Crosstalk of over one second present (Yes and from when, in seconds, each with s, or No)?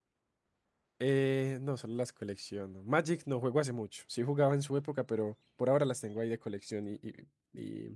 No